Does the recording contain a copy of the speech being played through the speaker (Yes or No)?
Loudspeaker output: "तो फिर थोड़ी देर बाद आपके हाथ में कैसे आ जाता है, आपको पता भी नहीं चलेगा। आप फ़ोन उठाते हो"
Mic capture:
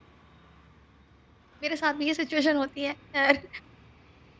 No